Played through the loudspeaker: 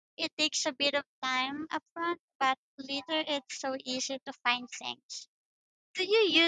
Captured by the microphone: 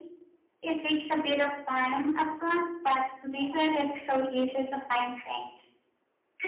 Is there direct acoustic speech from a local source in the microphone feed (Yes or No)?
No